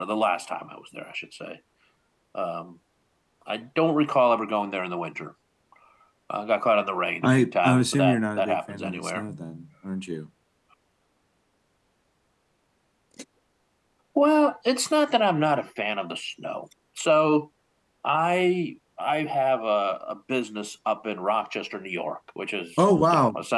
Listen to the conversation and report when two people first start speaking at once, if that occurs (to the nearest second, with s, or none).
7 s